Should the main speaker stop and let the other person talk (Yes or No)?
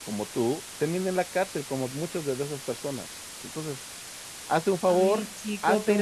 Yes